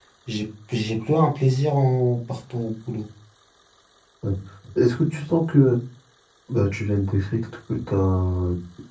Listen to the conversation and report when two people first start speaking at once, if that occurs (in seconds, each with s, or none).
none